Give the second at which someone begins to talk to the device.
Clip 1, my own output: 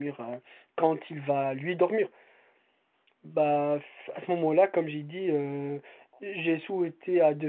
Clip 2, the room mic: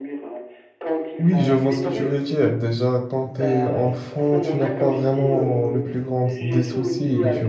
1.2 s

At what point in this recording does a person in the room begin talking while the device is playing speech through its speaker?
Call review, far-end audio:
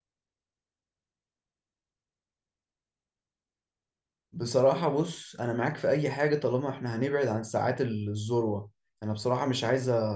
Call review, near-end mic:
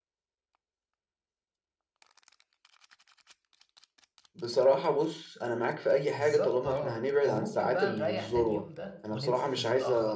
6.1 s

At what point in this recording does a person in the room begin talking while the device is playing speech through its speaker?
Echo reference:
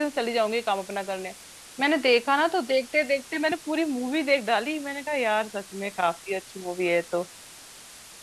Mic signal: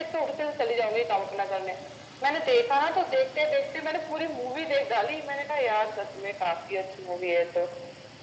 none

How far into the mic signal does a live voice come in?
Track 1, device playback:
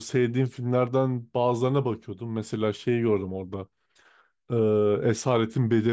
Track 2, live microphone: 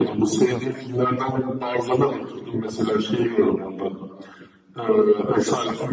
0.4 s

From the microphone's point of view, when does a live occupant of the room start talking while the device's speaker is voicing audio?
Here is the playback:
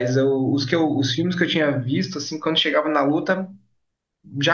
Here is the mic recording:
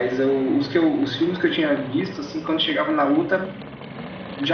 none

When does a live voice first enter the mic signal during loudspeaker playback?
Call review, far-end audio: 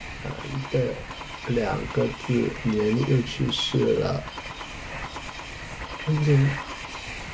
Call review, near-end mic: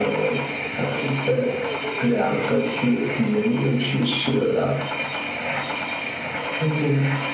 none

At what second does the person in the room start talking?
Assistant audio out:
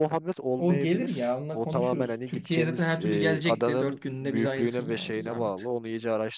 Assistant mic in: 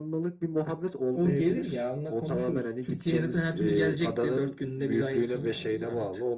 none

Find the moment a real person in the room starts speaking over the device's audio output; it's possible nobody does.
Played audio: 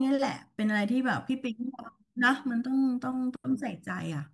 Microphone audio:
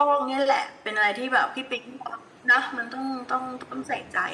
none

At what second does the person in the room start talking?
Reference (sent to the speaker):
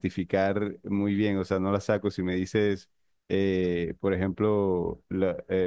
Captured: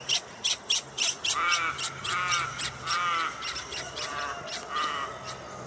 none

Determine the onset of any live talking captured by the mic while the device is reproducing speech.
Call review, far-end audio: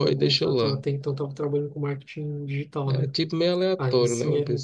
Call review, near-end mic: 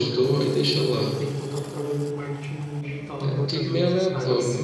3.3 s

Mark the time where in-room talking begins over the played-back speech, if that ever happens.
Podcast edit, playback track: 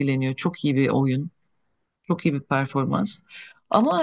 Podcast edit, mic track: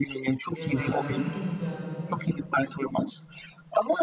0.5 s

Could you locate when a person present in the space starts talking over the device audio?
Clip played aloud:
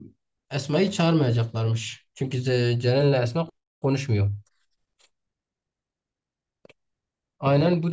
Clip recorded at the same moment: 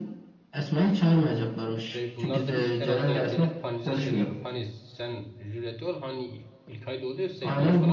1.8 s

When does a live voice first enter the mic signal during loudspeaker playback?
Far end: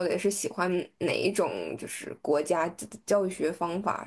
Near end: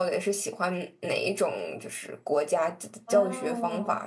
3.0 s

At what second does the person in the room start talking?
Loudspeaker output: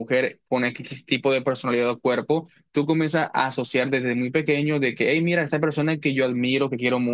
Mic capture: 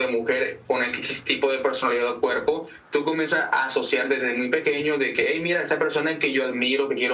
none

